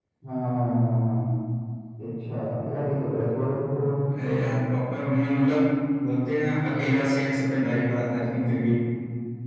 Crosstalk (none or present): none